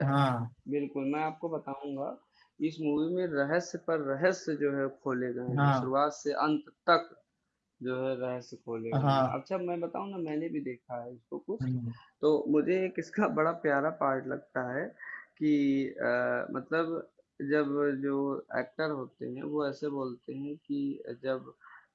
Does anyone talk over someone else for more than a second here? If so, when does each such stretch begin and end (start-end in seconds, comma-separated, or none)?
none